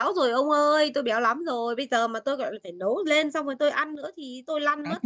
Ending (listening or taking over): taking over